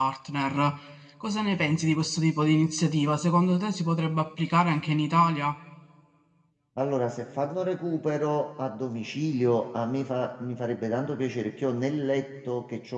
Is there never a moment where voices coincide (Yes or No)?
Yes